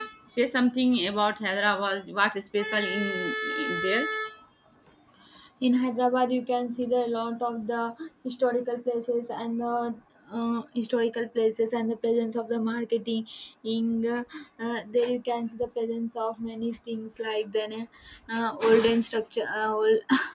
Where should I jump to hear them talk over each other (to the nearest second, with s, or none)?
none